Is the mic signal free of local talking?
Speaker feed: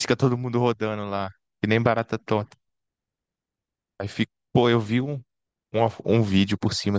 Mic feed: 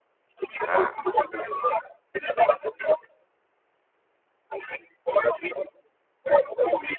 No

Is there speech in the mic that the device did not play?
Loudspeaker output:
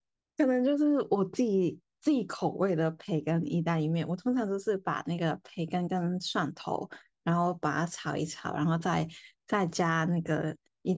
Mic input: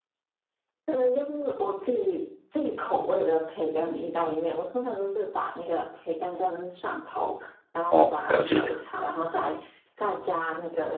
Yes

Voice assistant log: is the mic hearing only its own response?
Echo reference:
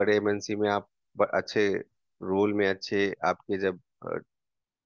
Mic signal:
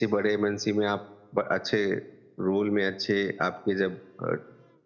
Yes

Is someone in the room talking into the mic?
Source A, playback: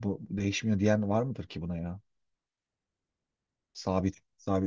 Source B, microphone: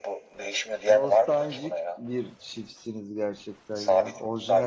Yes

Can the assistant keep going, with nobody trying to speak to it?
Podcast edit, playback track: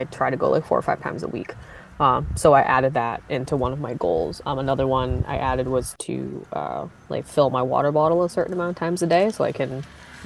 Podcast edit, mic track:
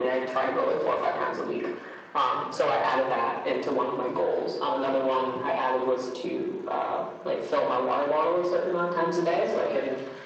Yes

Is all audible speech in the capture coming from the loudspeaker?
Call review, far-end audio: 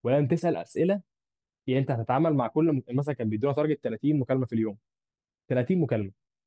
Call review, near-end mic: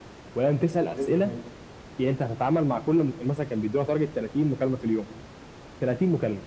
No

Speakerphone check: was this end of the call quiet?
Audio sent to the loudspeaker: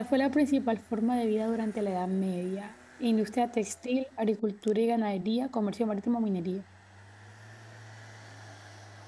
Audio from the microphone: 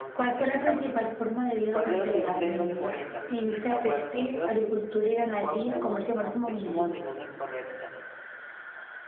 No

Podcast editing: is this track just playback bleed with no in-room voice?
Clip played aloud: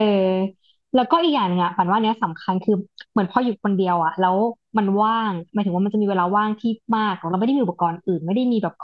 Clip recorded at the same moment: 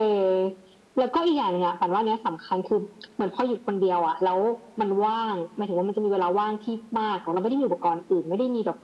Yes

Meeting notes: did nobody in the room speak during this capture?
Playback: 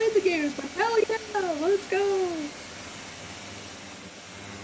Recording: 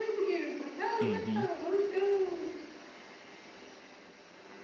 No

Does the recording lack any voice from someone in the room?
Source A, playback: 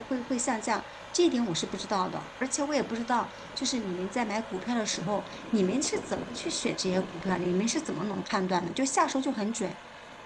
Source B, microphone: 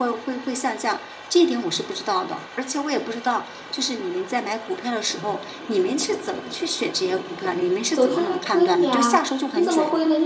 No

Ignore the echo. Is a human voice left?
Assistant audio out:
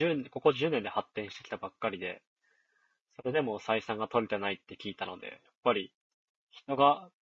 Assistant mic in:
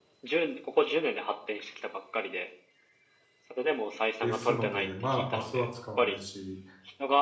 Yes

